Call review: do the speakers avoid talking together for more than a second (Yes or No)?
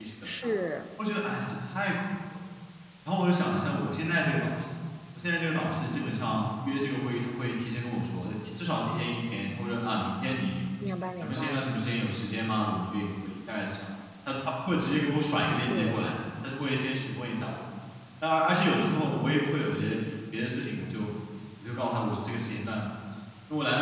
Yes